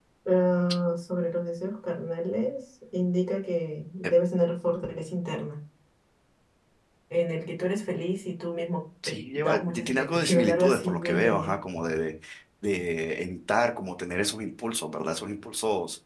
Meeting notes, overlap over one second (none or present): present